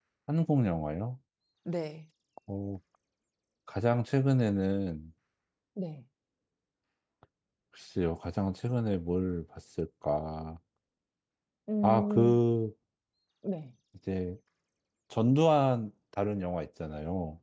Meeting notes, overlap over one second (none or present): none